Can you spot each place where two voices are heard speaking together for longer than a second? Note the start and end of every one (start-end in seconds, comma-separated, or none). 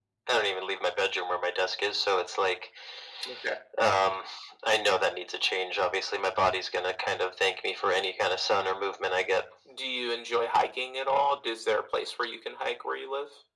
none